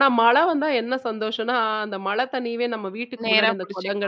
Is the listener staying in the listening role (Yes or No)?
Yes